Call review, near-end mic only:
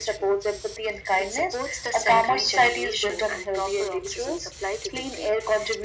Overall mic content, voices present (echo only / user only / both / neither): echo only